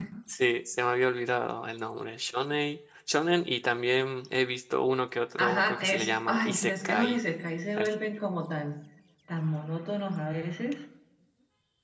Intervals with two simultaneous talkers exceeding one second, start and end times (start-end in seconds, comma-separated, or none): 5.4-7.2